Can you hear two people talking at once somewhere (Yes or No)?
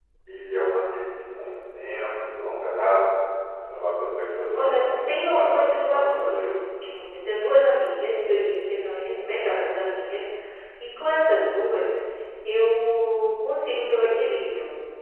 Yes